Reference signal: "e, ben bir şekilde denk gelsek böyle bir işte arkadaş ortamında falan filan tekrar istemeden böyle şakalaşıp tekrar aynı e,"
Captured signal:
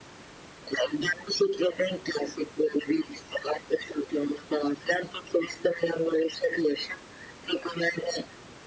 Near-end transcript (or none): none